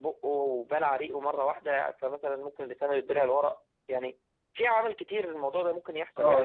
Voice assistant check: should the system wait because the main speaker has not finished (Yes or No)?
No